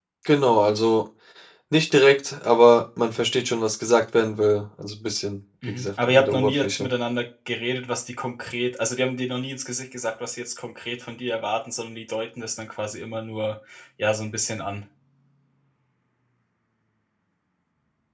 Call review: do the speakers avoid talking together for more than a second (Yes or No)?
No